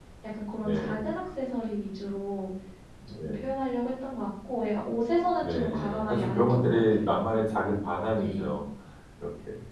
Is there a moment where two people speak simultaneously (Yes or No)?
Yes